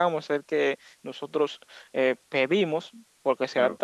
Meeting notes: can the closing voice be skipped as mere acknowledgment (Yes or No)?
Yes